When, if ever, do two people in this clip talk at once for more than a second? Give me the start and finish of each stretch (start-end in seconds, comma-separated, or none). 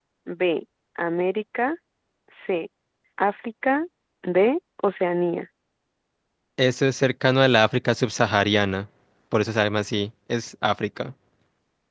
none